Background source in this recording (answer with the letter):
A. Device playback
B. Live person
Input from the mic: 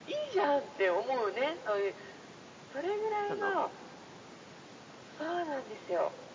B